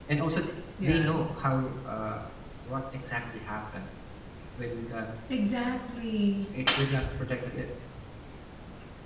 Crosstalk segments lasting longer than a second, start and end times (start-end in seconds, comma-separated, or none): none